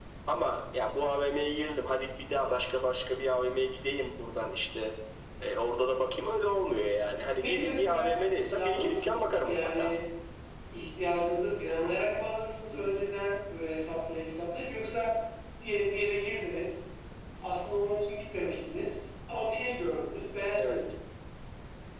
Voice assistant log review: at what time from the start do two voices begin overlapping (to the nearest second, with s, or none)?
7 s